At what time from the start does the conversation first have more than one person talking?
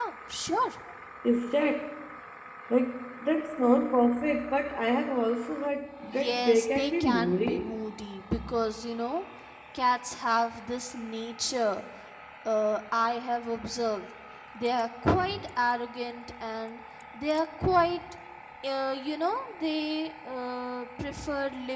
6.1 s

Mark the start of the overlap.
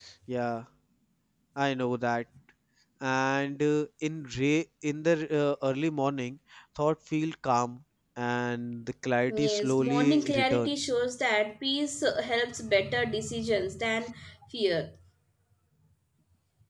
9.3 s

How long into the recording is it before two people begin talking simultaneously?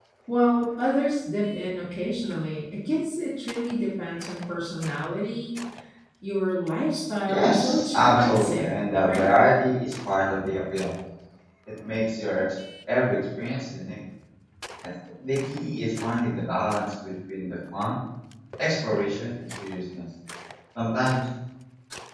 7.3 s

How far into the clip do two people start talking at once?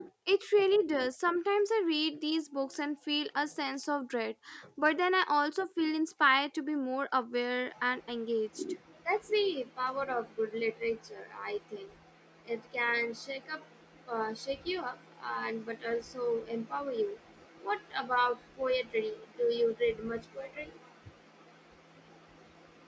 none

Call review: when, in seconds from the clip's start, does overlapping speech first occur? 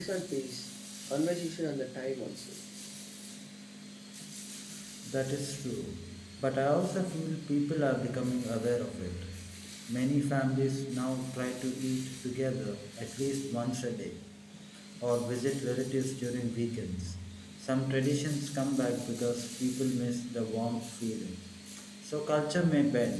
none

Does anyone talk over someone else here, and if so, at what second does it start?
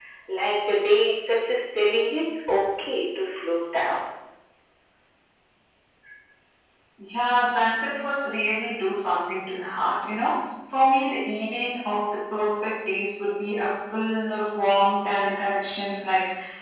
none

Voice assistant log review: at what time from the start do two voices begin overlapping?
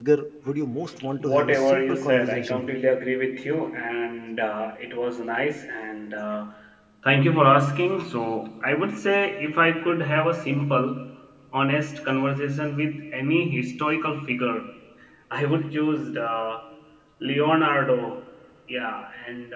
1.2 s

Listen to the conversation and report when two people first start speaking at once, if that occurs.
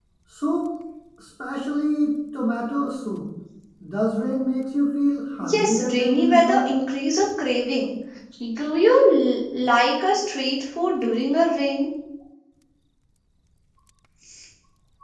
5.4 s

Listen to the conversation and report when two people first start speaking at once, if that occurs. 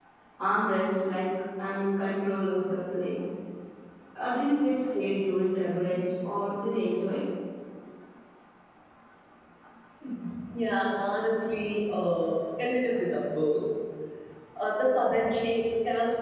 none

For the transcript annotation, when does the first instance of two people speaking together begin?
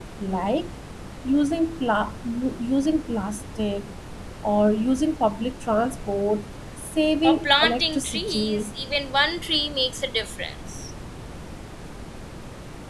7.2 s

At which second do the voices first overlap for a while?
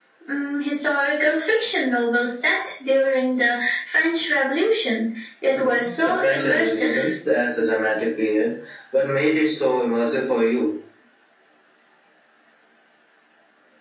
5.5 s

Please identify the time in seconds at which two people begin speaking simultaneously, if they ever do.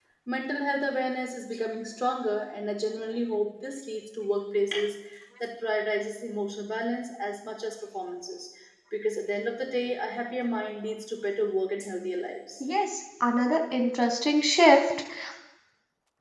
none

